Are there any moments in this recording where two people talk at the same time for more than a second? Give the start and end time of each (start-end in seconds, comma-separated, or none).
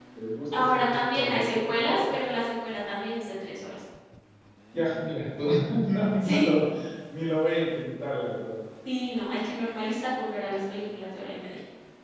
0.5-2.1